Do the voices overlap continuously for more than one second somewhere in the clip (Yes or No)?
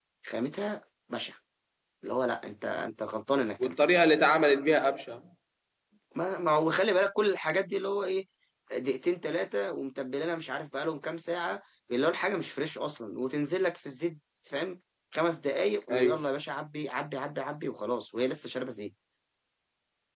No